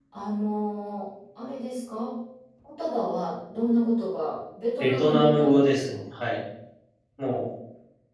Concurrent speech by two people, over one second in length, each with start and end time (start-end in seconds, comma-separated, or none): 4.8-6.0